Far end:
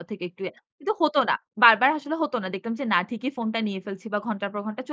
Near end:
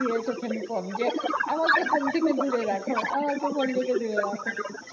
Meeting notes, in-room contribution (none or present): present